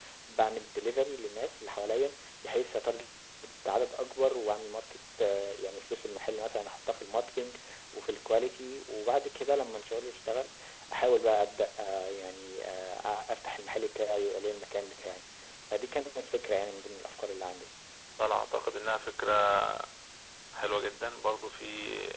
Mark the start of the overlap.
none

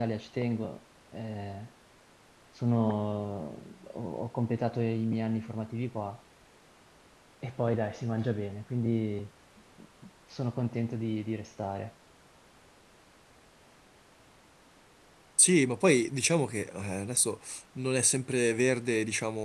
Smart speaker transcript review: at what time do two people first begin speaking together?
none

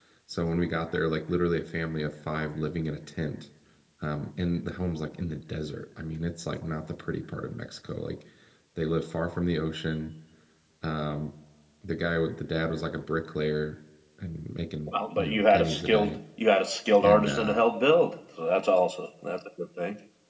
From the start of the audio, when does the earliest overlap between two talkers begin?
14.9 s

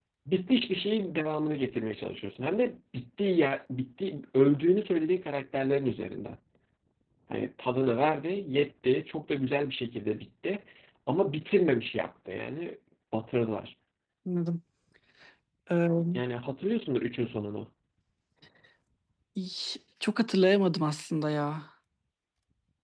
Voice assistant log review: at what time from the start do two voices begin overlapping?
none

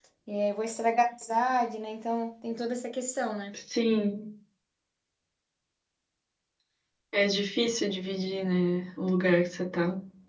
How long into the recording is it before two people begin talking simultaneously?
none

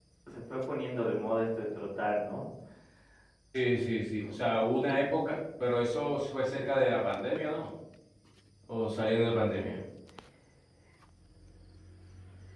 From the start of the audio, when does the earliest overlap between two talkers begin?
none

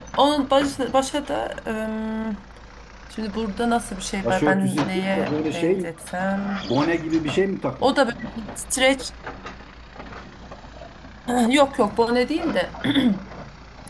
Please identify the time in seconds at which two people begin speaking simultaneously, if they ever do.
4.2 s

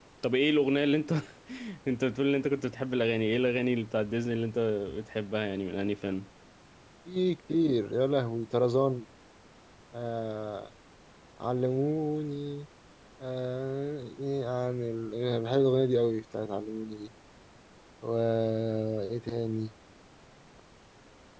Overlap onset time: none

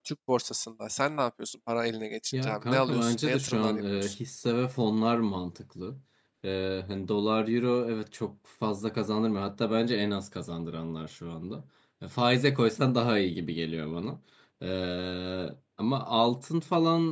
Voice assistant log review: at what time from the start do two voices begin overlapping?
2.3 s

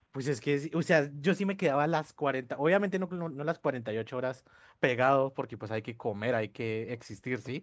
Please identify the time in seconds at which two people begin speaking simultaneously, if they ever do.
none

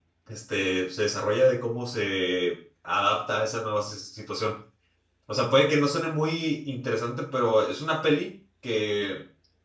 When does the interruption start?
none

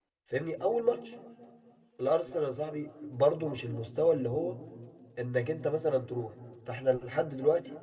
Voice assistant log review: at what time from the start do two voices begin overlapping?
none

